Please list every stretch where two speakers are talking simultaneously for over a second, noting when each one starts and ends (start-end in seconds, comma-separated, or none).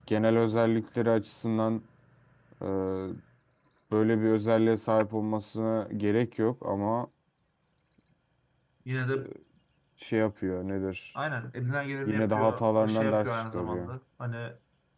12.0-13.9